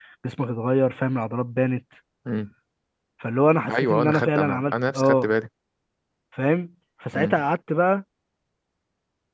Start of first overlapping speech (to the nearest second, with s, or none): 4 s